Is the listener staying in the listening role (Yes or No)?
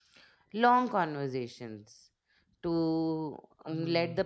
Yes